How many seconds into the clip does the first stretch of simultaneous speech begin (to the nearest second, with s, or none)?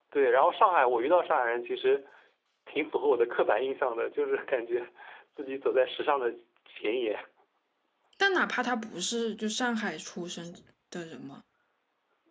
none